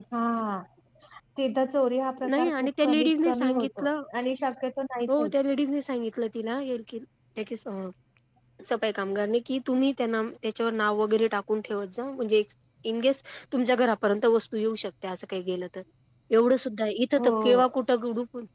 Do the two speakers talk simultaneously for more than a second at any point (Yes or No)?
Yes